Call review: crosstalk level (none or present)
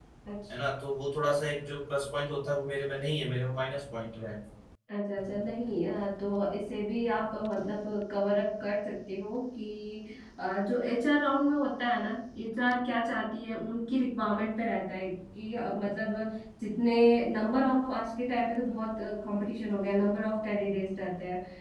none